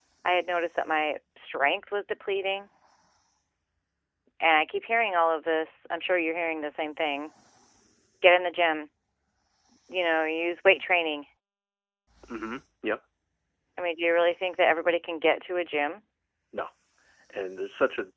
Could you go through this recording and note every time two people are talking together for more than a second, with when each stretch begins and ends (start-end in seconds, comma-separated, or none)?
none